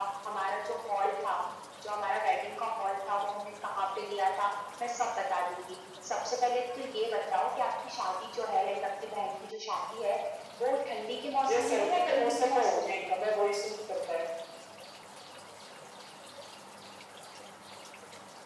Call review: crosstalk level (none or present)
present